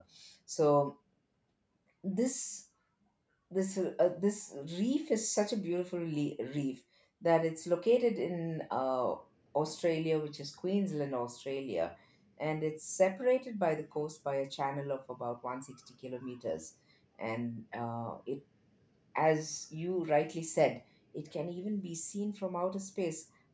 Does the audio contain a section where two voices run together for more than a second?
No

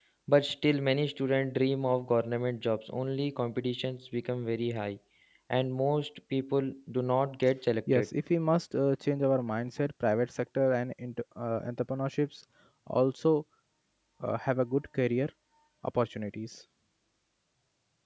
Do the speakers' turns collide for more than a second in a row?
No

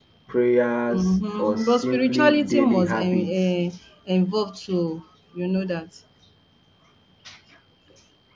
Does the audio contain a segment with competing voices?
Yes, from 0.9 s

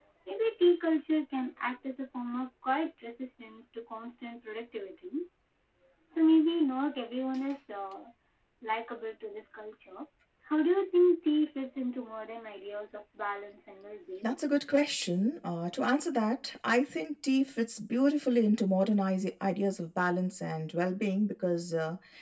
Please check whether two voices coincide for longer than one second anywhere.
No

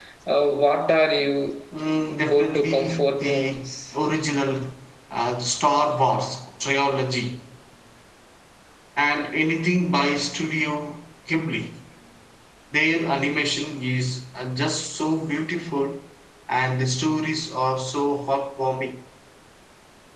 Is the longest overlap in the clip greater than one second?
Yes, from 2.2 s

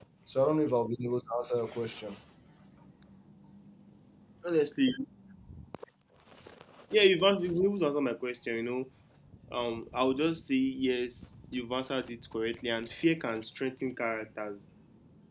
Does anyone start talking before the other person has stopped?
No

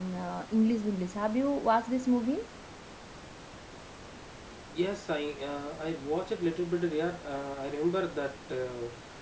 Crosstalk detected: No

